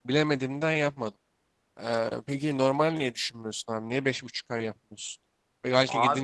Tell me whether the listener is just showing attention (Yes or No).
Yes